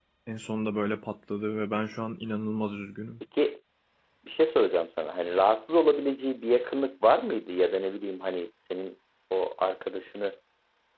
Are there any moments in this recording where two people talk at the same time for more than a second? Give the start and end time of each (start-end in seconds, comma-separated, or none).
none